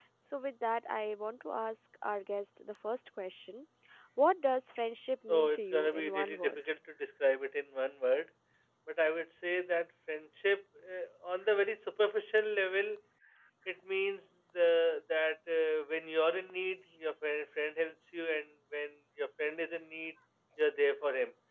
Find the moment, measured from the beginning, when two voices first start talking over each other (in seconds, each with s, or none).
5.3 s